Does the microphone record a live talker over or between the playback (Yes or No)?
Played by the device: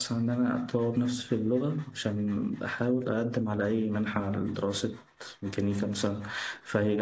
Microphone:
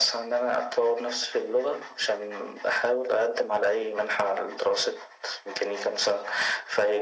No